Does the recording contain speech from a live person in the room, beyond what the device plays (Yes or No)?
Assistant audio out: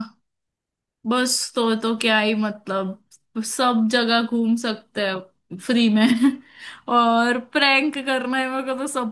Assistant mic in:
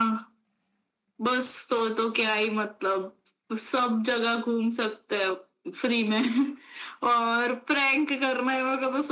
No